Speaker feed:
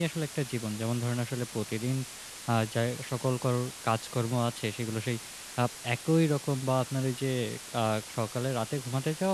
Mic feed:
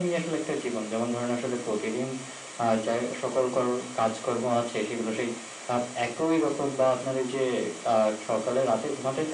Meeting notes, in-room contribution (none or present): none